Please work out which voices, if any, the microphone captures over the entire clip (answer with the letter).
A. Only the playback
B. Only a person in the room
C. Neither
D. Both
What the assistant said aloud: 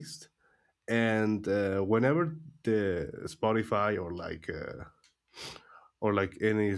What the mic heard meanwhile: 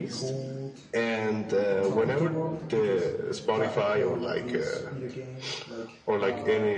D